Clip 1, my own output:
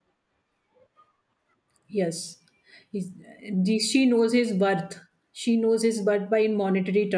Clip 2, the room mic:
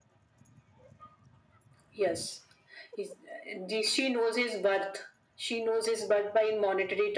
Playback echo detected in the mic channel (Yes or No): Yes